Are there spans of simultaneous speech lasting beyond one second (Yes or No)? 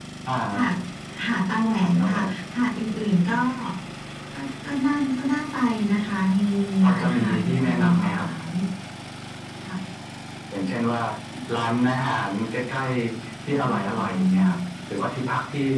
Yes